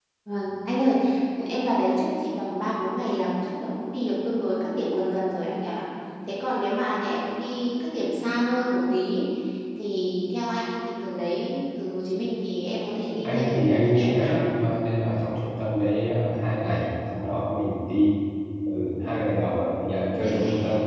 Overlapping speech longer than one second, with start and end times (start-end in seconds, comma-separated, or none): 13.2-14.5